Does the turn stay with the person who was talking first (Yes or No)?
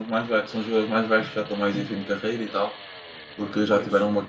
Yes